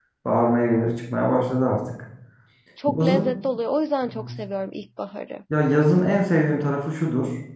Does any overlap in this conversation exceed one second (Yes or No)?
No